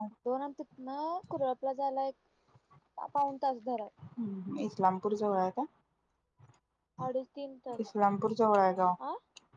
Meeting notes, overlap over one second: none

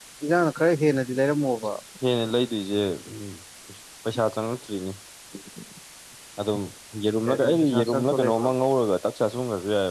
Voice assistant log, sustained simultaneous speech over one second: present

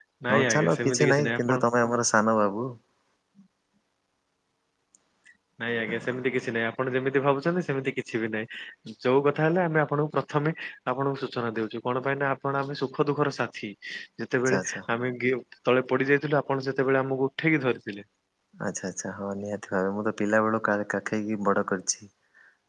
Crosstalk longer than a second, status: present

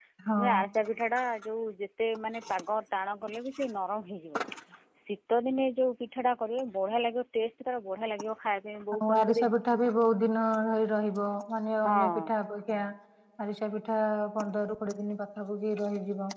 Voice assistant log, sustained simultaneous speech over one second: none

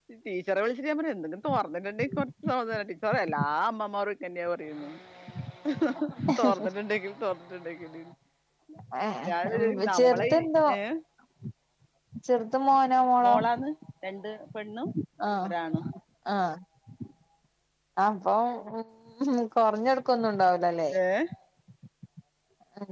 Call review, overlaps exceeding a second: present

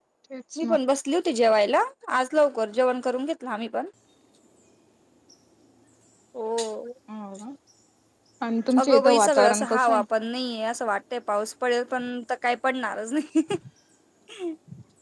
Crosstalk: present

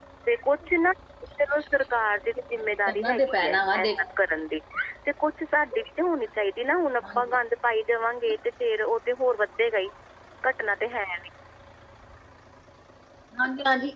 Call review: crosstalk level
present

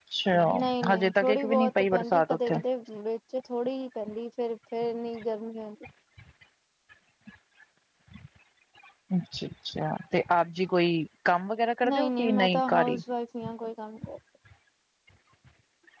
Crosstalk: present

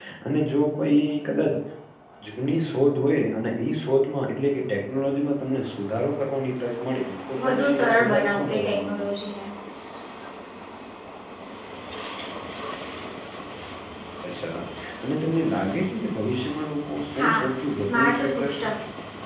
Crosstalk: present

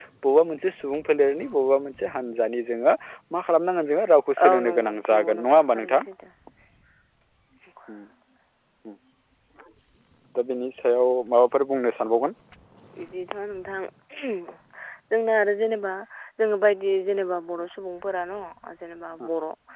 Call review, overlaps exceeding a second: present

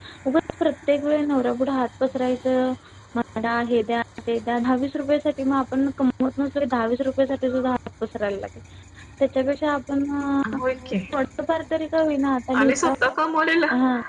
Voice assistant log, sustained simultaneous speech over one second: none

